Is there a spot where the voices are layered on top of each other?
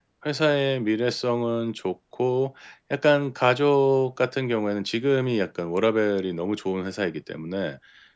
No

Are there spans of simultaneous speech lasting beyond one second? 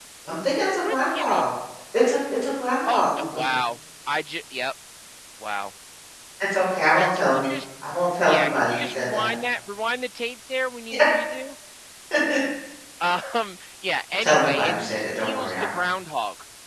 Yes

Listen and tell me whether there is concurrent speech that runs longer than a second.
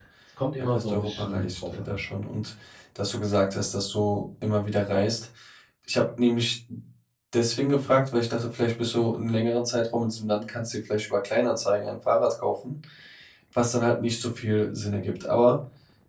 Yes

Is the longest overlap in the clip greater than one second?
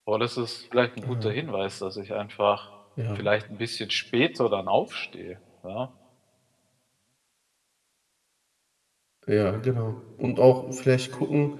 No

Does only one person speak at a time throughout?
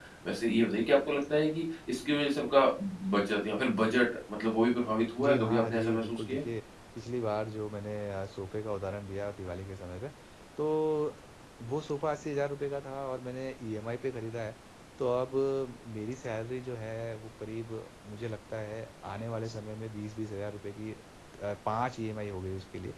No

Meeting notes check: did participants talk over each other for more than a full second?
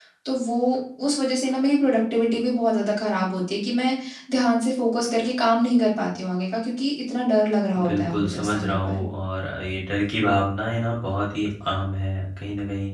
Yes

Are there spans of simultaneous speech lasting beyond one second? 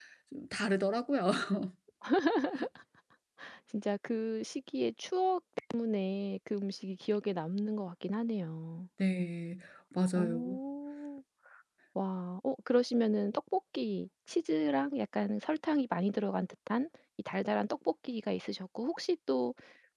No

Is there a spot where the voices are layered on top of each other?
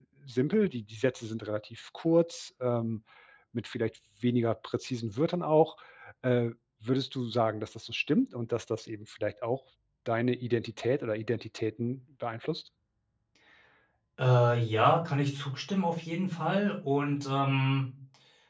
No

